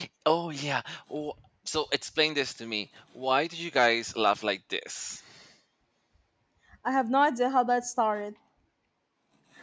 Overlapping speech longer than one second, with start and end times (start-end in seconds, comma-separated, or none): none